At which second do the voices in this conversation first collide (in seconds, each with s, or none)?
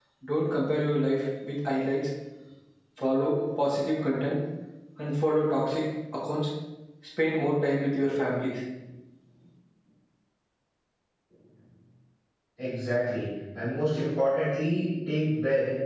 none